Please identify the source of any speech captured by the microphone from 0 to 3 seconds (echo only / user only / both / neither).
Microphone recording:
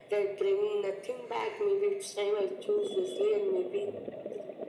echo only